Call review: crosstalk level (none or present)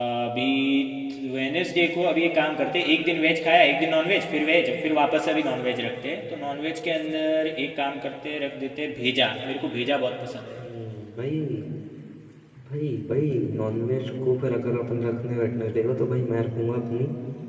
none